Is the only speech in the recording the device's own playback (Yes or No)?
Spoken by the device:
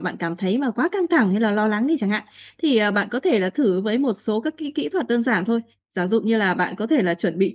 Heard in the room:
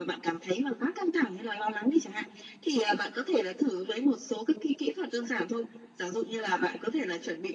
Yes